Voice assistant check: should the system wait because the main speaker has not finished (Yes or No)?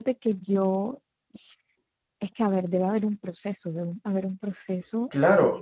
No